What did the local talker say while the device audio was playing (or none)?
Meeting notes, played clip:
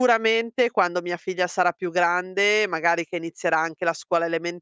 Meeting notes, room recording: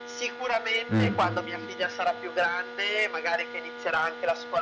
Mh,